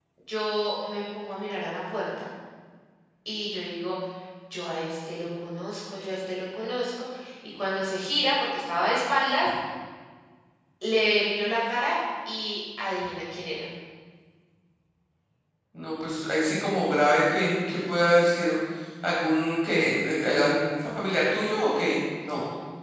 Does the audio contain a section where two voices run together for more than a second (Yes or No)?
No